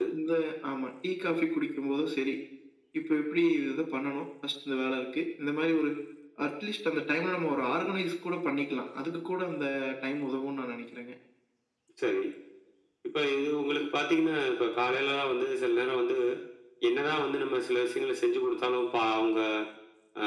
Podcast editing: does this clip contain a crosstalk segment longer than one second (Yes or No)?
No